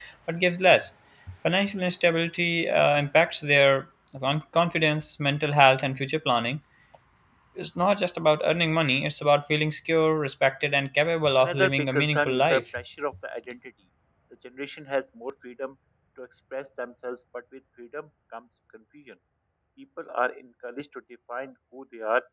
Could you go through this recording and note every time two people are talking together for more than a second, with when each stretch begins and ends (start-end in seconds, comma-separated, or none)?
11.4-12.6